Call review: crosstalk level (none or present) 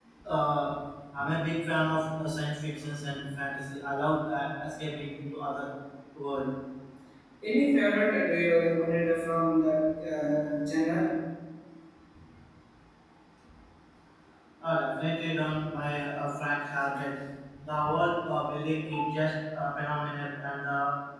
none